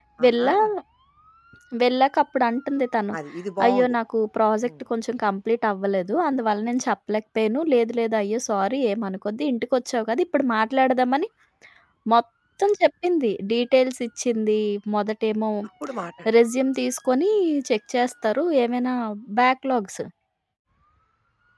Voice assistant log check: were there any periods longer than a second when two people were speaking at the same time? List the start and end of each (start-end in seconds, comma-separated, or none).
none